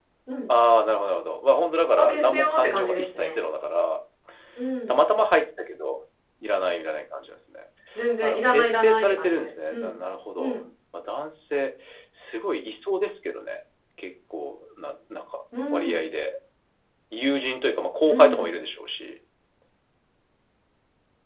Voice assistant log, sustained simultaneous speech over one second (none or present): present